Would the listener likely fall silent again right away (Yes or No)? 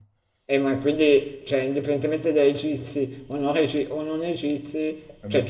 Yes